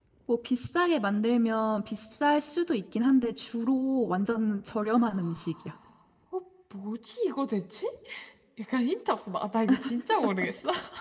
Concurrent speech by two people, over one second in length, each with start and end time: none

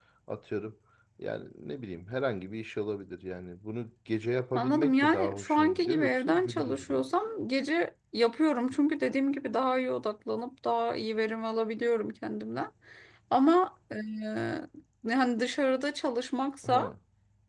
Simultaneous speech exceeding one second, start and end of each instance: 4.5-7.0

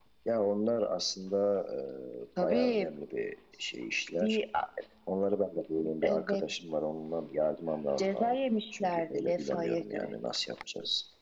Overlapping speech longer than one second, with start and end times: 8.0-10.1

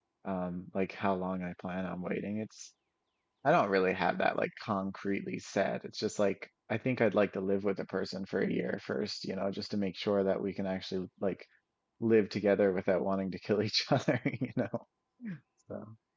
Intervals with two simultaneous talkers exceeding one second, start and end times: none

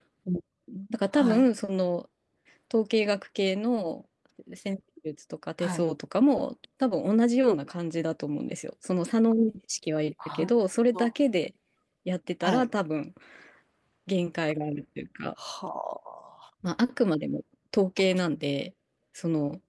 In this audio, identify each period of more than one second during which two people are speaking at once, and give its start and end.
none

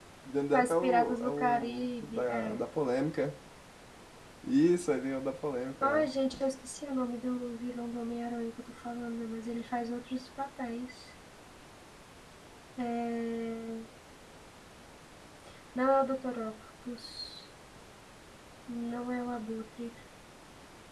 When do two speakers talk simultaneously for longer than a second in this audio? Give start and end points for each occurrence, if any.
0.5-2.6

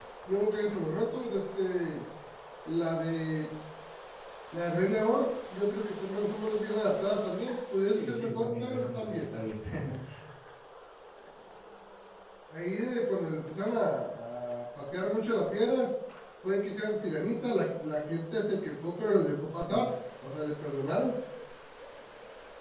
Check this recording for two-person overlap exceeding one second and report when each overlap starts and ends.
7.9-9.2

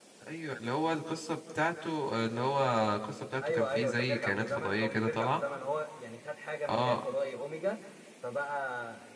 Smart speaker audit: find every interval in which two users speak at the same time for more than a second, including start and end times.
3.4-5.4

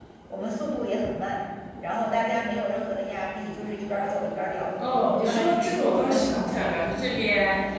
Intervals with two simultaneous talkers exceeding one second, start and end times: 4.8-6.1

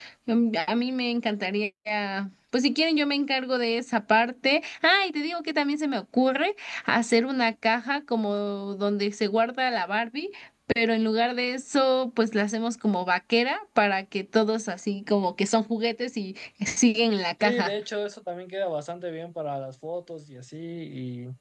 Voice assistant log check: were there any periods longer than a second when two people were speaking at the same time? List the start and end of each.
none

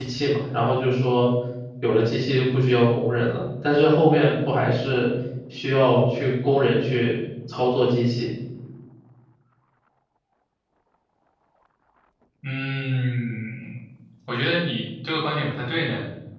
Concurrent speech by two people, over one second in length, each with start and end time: none

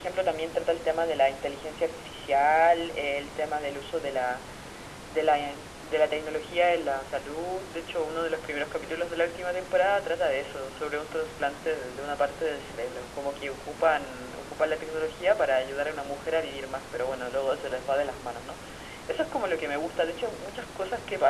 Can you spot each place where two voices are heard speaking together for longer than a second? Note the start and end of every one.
none

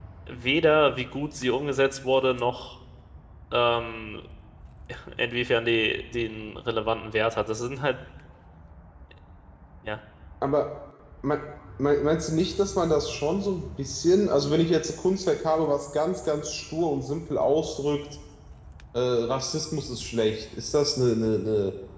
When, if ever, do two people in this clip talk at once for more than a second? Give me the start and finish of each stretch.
none

